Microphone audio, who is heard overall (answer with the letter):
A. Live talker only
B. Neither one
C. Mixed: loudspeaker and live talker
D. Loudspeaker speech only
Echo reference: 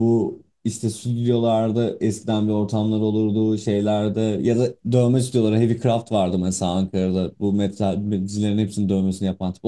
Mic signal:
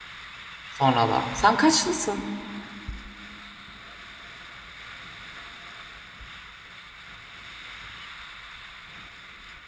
A